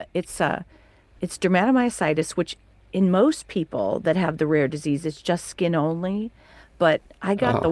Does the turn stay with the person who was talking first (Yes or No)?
Yes